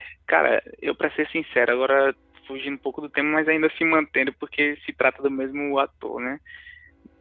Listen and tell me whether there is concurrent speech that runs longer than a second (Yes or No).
No